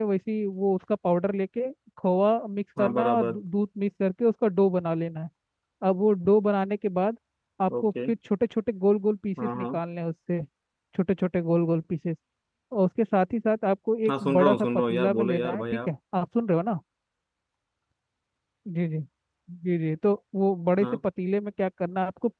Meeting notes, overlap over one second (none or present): present